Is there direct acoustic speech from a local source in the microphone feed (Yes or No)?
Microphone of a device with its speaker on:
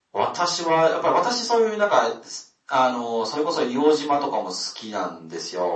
No